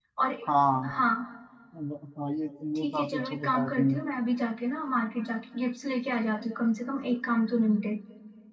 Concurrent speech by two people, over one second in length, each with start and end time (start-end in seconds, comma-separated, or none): 2.8-4.0